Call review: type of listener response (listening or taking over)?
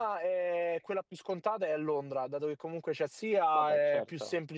listening